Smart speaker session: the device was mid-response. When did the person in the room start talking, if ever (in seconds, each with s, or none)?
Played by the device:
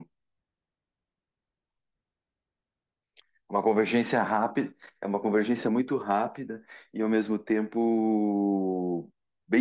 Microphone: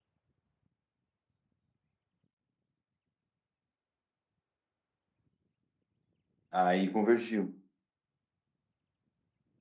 6.5 s